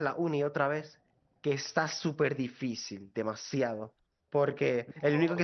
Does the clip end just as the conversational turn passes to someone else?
No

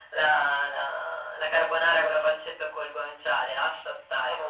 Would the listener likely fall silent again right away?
No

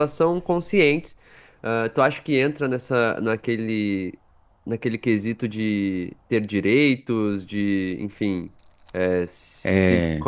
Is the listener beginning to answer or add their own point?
No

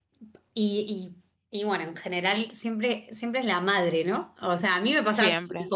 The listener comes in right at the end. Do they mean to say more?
No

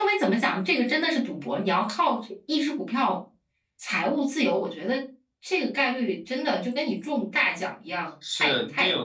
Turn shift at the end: Yes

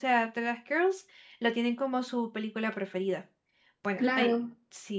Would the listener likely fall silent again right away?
No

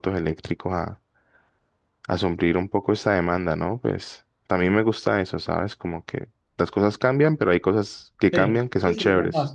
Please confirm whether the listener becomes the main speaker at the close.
Yes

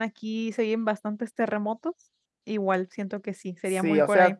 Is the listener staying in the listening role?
No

